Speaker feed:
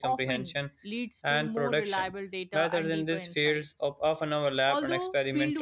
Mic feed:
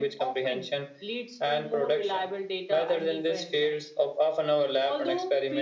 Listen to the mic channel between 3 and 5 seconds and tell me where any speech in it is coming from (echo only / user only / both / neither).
echo only